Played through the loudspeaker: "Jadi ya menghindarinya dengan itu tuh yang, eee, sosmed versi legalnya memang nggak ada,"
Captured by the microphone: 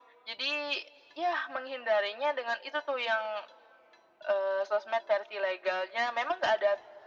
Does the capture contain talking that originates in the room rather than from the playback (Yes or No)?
No